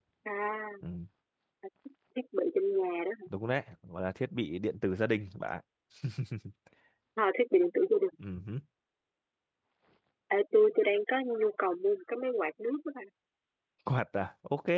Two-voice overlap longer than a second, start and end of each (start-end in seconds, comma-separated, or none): none